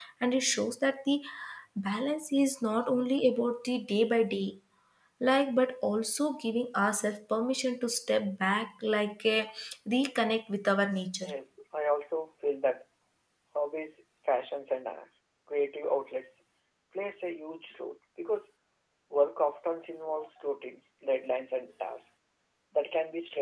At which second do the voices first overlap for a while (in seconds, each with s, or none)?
none